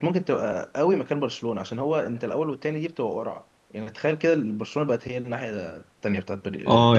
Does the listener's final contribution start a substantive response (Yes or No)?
Yes